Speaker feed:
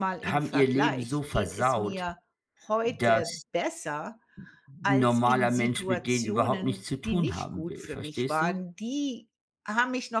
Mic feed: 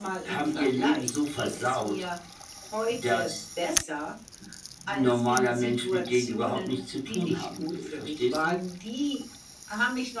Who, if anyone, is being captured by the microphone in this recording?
echo only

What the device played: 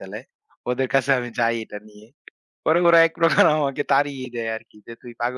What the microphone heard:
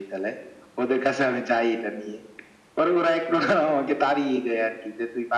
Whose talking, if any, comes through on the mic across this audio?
echo only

